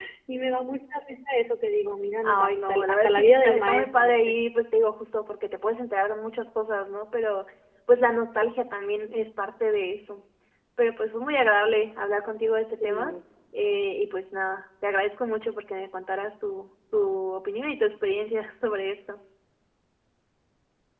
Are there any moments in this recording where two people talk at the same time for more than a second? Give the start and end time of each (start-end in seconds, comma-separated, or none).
2.2-4.3